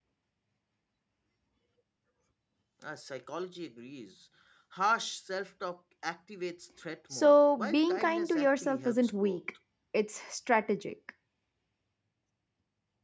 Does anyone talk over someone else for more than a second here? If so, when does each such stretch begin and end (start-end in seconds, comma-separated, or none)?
7.1-9.4